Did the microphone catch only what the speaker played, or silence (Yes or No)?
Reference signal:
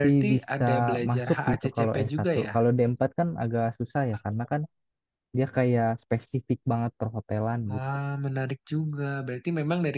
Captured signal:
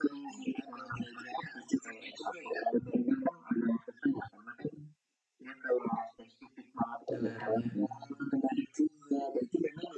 No